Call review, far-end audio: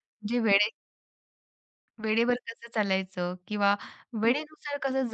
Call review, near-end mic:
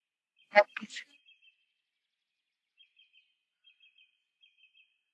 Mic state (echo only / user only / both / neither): user only